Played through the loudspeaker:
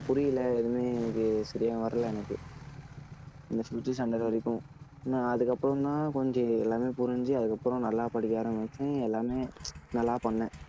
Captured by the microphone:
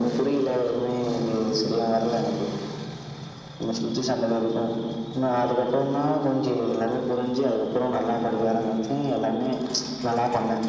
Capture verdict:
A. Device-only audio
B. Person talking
A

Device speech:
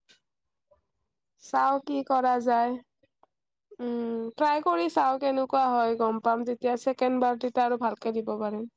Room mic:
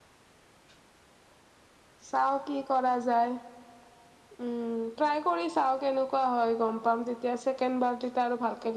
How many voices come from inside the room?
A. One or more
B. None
B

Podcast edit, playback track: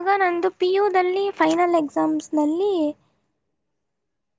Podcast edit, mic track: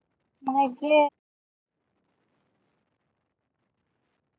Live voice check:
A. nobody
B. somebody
B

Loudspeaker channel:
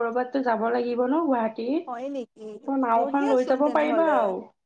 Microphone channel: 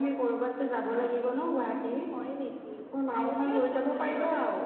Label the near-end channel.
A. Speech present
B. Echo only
B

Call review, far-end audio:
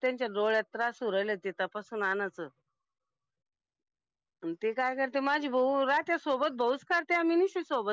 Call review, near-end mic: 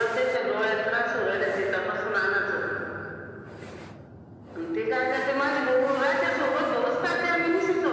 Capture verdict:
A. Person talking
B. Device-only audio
B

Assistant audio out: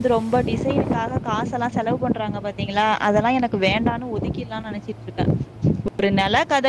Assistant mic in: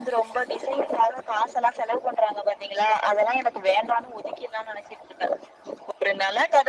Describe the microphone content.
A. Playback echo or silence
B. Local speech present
A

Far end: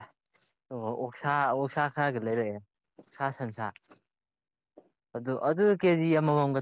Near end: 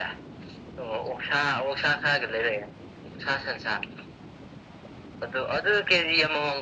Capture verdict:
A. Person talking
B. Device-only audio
B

